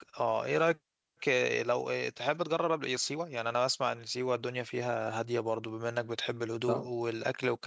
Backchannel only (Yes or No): Yes